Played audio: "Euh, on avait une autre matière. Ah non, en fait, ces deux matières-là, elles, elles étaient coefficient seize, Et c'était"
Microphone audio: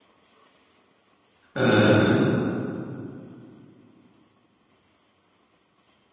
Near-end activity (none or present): present